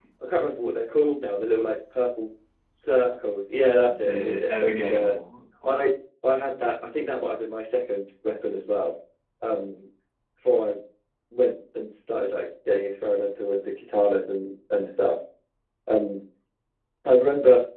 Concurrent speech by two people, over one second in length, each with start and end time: 3.9-5.1

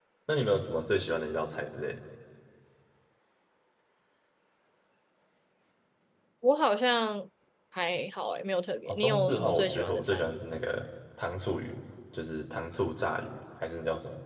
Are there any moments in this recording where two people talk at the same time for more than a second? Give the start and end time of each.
8.9-10.3

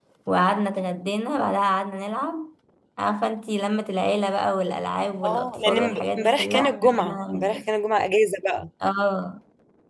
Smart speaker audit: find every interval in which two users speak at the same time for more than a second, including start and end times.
5.2-7.6

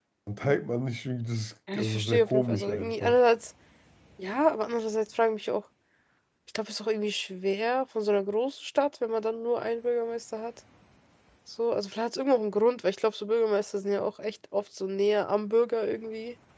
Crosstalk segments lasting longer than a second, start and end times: 1.7-3.2

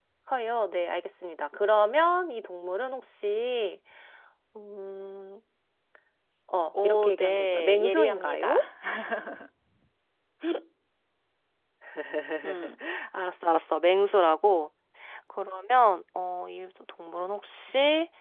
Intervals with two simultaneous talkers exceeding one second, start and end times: 6.8-8.6

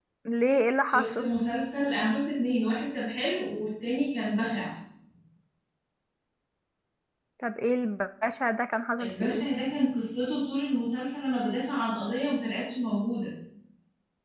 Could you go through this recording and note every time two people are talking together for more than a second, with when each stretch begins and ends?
none

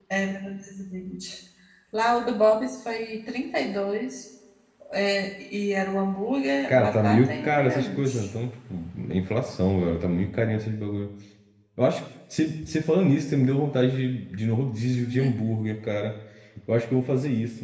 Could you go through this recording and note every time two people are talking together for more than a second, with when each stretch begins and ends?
6.7-8.3

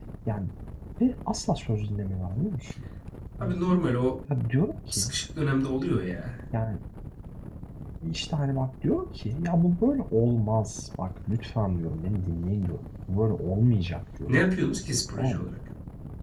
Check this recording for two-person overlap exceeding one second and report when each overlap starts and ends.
none

